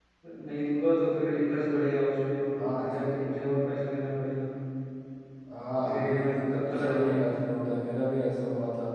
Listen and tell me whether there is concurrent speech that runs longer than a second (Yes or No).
Yes